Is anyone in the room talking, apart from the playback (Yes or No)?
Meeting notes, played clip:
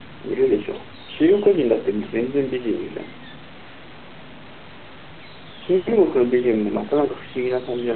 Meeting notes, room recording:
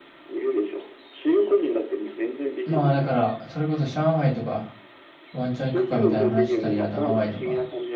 Yes